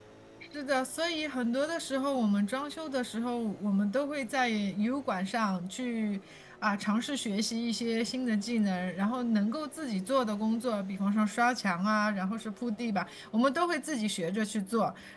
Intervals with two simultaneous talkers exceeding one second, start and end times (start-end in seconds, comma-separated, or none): none